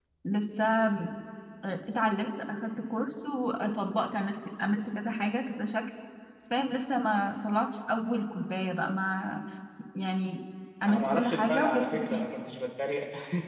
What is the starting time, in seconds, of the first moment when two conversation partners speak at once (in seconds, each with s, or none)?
10.8 s